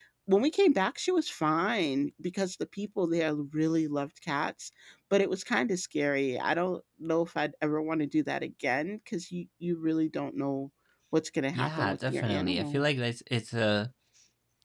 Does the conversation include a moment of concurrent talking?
Yes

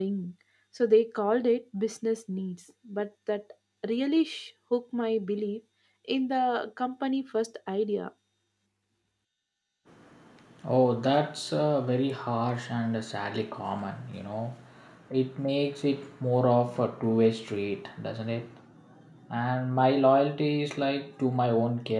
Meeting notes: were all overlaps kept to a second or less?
Yes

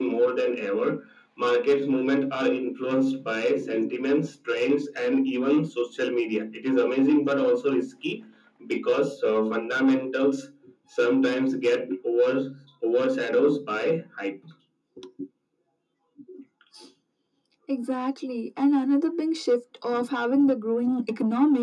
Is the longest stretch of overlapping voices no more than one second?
Yes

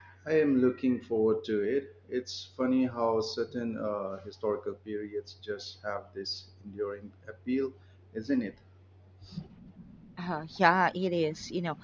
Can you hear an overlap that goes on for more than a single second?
No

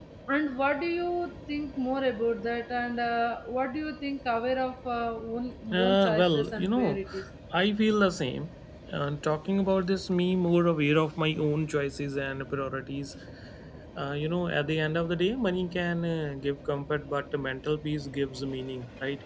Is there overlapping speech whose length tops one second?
Yes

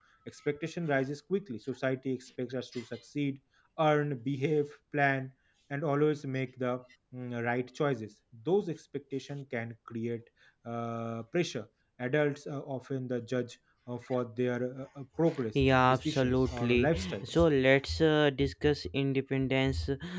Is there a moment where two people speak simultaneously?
Yes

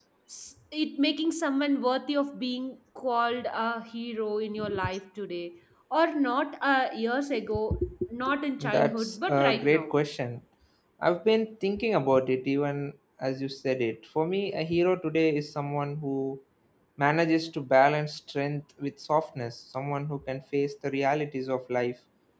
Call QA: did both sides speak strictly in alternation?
No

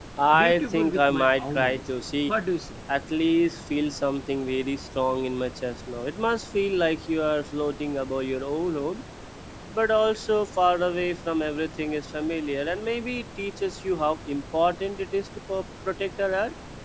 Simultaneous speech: Yes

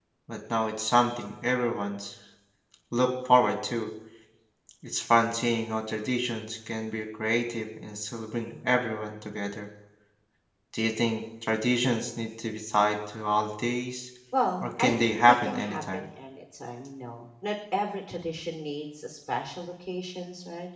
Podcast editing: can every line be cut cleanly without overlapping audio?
No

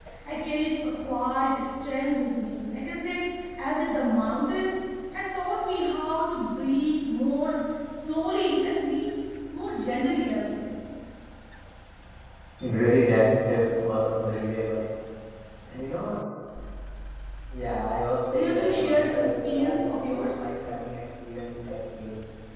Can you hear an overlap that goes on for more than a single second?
Yes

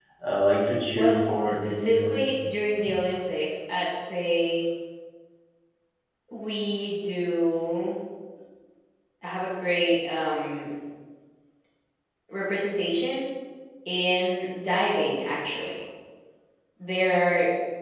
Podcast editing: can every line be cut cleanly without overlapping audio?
No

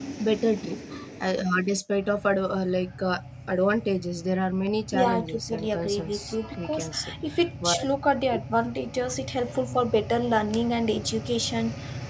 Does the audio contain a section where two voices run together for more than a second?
Yes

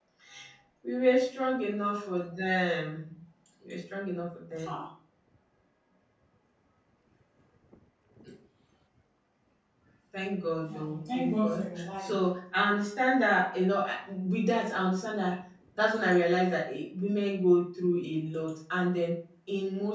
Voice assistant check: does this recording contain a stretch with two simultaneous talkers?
Yes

